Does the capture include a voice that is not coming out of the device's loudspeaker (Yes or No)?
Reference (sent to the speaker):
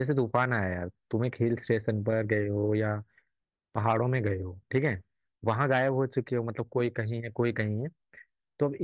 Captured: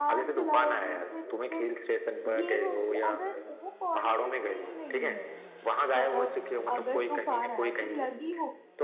Yes